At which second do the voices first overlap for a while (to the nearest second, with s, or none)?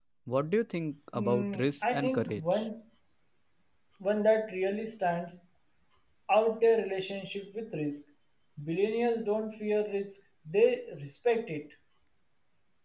1 s